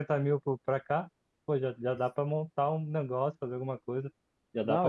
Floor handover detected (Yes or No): Yes